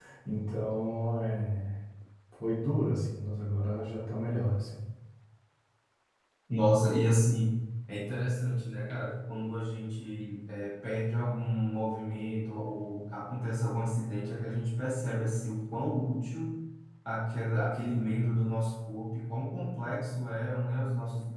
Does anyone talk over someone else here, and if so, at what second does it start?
none

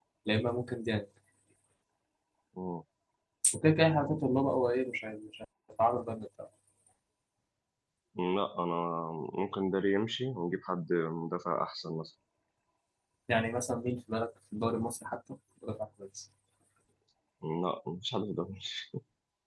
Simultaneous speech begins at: none

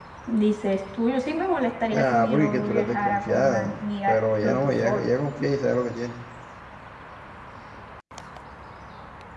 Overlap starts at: 1.9 s

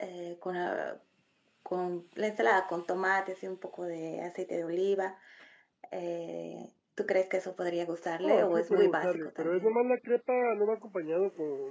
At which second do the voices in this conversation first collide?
8.2 s

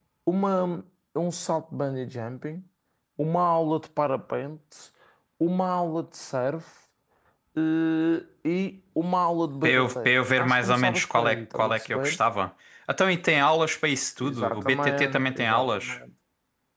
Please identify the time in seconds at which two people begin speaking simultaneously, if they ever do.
9.6 s

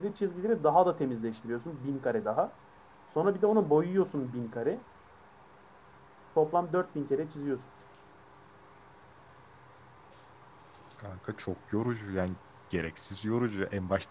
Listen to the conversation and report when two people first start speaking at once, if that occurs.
none

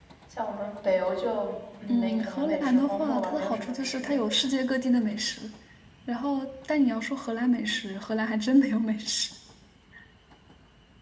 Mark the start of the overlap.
1.9 s

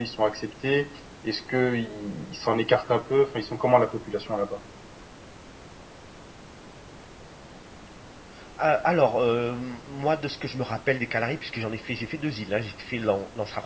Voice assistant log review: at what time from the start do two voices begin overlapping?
none

